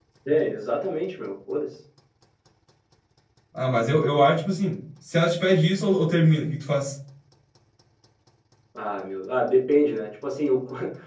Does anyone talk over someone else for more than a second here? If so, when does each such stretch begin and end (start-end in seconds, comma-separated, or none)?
none